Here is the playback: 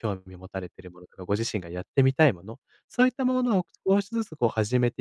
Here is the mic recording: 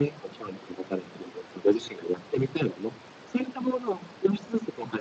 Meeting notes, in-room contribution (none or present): none